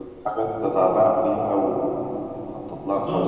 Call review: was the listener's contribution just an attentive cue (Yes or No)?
No